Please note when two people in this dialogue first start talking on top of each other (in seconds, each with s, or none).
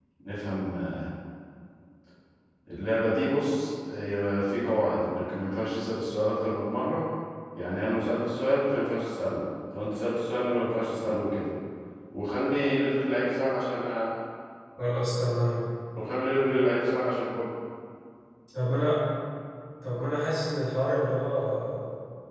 none